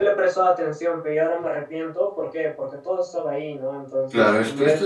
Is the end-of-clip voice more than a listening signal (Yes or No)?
Yes